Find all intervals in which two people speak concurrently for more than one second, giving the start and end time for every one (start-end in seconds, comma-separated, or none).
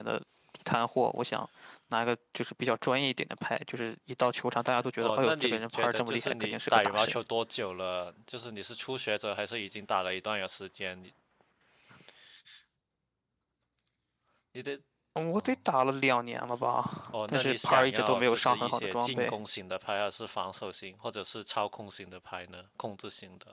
5.0-7.2, 17.3-19.3